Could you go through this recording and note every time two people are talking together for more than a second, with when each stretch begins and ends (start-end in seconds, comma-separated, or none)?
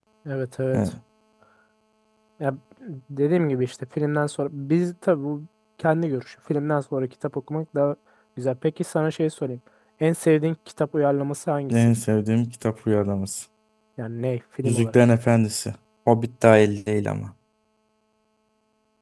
none